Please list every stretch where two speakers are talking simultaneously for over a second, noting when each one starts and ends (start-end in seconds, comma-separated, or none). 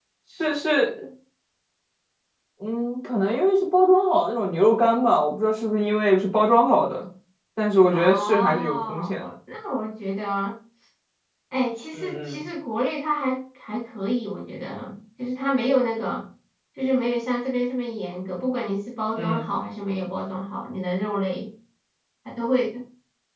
7.9-9.2